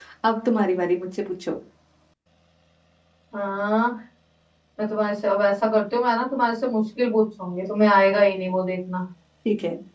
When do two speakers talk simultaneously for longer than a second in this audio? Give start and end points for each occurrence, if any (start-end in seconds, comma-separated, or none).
none